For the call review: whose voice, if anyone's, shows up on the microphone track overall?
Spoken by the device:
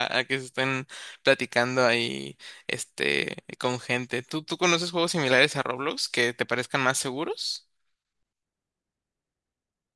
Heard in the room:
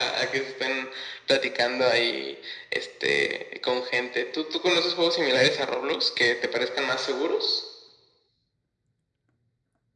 echo only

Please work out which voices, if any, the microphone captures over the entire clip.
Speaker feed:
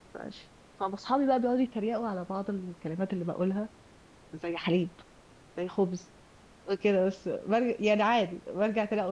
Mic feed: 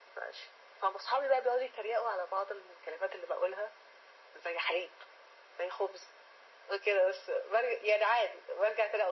echo only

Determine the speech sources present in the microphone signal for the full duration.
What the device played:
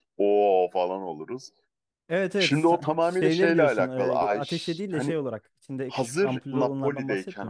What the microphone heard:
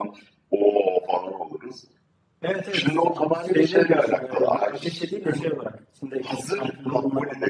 echo only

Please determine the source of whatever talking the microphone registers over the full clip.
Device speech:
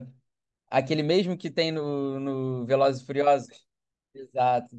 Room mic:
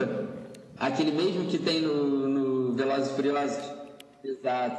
echo only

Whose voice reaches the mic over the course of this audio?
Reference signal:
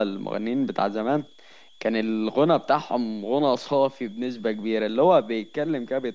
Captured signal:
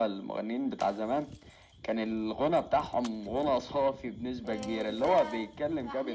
both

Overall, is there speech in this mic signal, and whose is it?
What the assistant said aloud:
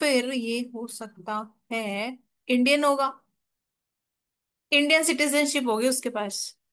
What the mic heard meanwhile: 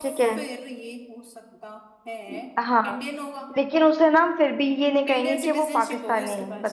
both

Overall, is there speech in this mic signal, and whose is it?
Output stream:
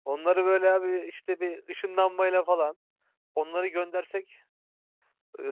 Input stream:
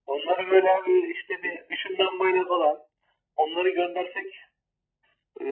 echo only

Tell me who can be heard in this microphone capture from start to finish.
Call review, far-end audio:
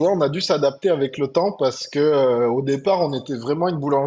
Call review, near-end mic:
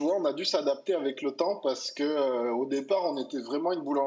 echo only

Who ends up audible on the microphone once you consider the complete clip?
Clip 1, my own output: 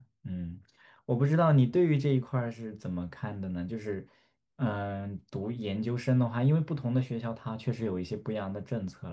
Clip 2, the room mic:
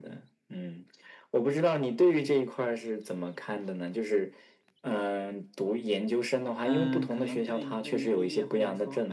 both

